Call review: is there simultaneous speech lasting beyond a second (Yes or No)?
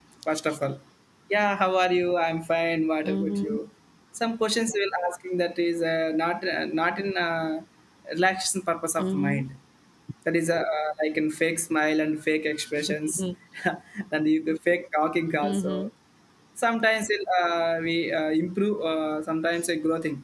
No